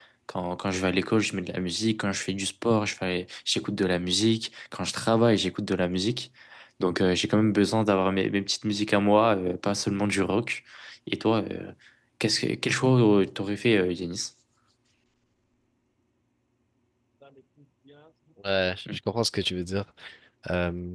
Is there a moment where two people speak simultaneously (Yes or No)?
No